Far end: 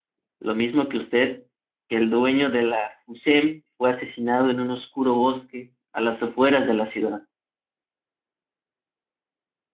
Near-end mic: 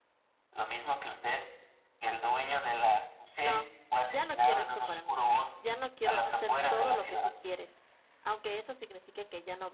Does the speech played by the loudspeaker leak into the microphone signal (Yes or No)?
Yes